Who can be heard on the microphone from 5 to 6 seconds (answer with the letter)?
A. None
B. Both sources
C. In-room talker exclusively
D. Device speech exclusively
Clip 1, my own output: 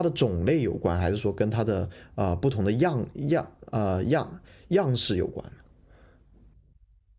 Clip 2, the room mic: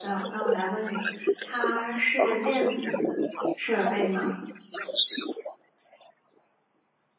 D